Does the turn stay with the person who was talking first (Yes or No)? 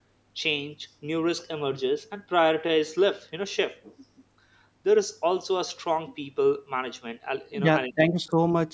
No